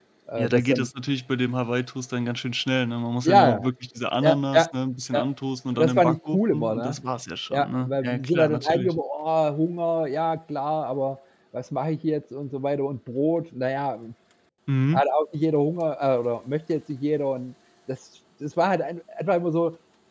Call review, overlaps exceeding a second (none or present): present